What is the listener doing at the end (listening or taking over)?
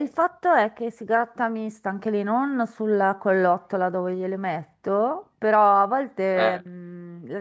listening